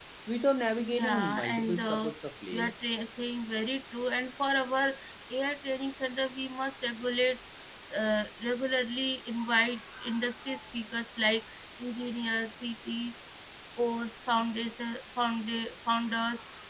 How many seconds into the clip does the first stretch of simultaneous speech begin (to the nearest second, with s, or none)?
1 s